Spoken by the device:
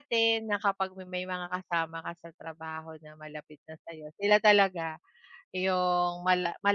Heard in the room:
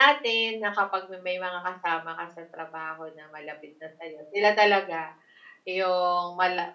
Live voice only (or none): none